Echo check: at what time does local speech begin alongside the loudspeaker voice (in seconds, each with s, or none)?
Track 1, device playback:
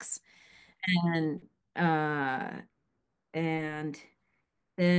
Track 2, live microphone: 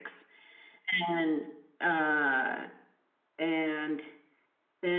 none